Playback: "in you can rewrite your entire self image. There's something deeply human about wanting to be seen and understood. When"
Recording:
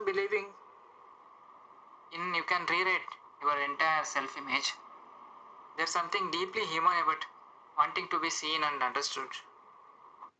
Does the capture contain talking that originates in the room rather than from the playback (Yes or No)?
No